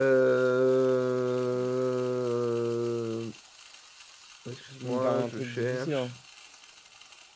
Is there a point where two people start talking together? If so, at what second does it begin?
4.8 s

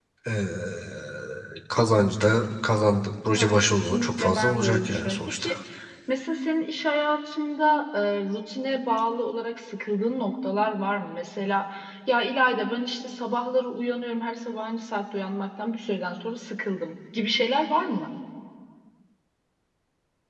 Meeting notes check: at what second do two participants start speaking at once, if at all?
3.3 s

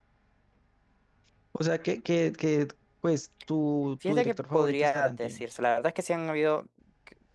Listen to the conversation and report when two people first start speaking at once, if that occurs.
4.0 s

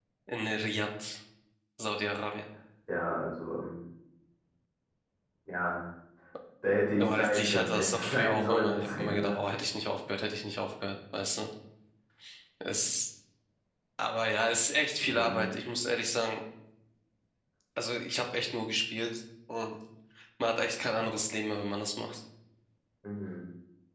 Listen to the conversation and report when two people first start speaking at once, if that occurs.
7.0 s

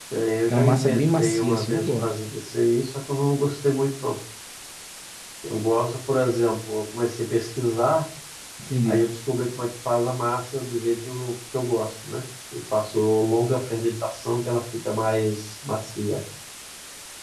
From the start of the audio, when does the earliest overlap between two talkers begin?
0.5 s

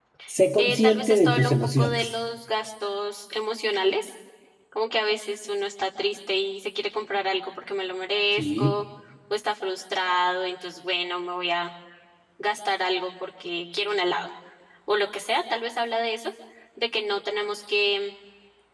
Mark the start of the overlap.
0.6 s

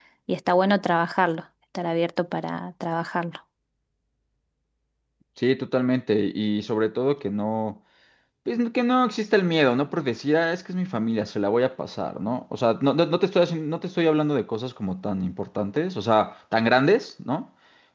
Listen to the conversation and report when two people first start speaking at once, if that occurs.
none

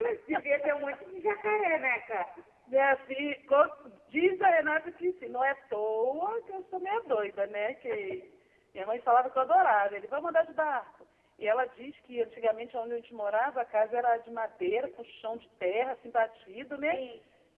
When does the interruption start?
none

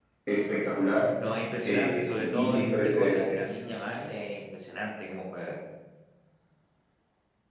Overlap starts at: 1.6 s

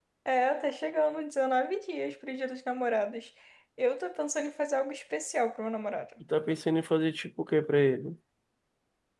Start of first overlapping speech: none

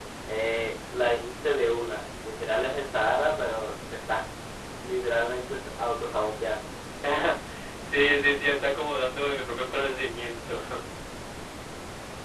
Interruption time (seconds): none

